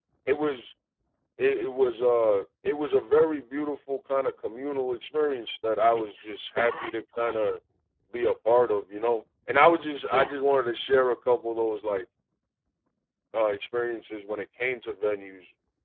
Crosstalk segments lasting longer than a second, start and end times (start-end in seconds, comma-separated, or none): 6.0-7.4